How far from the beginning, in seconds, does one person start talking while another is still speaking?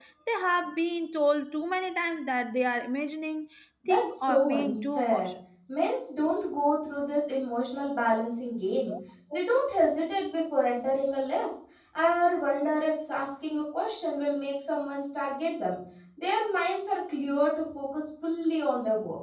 3.9 s

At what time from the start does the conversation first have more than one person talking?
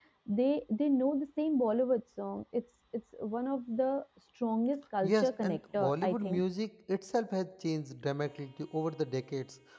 5.0 s

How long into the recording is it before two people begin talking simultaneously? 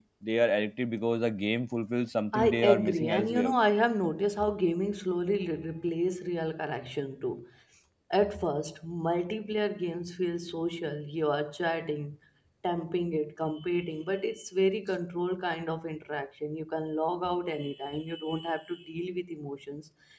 2.3 s

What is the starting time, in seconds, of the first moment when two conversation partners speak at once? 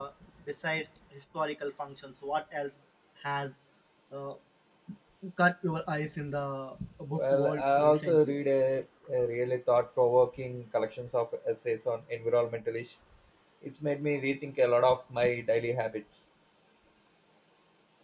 7.1 s

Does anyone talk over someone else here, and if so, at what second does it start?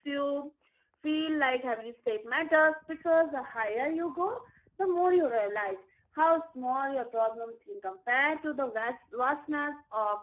none

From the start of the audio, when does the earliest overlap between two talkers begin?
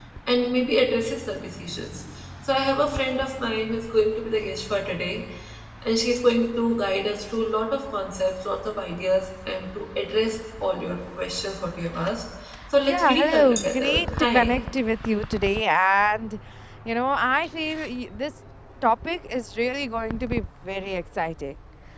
12.8 s

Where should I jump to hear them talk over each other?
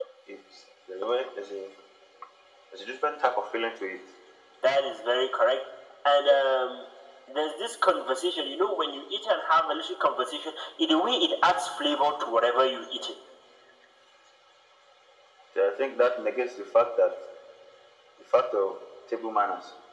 none

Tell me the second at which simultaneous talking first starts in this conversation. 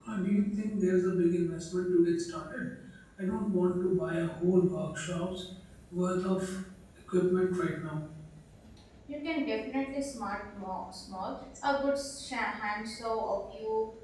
none

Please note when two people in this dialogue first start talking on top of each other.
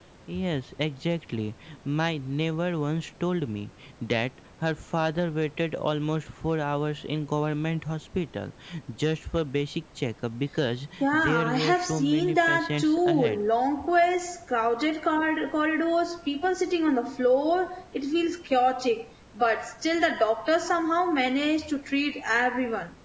11.0 s

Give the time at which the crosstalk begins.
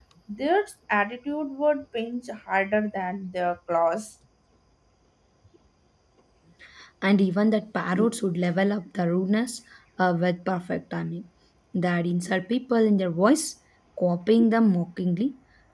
none

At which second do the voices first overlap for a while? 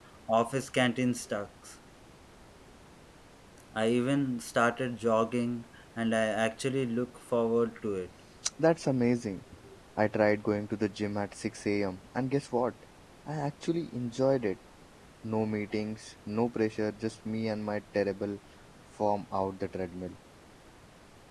none

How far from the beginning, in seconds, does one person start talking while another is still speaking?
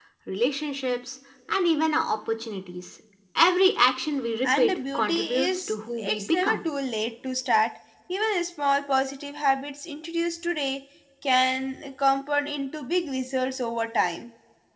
4.4 s

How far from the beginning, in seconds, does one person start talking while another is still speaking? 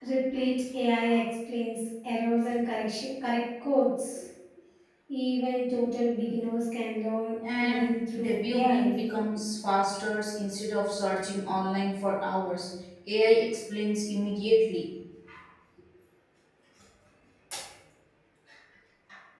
7.4 s

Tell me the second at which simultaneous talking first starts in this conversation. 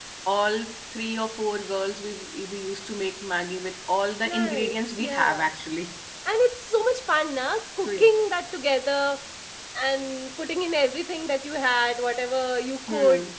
4.2 s

